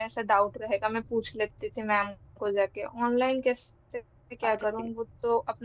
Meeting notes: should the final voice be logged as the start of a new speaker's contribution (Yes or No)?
No